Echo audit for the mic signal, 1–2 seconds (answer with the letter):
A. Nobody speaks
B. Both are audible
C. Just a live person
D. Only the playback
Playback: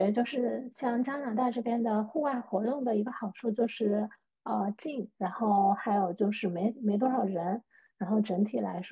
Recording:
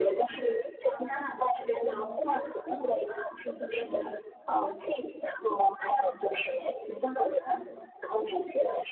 D